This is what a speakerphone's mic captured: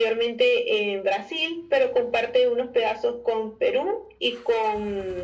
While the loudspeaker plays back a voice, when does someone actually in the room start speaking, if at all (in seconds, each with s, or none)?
none